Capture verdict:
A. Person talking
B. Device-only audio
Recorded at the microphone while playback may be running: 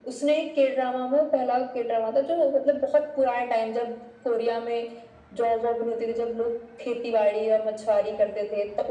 B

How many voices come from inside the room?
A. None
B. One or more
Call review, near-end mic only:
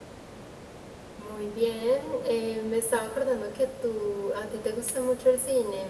B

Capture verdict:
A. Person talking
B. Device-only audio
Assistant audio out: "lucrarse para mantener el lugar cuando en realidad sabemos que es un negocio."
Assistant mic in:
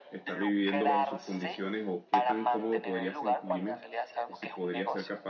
A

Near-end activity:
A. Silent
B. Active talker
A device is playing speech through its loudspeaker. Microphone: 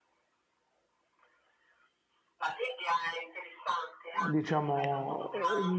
B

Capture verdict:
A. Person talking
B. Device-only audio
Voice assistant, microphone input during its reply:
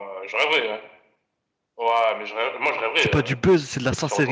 A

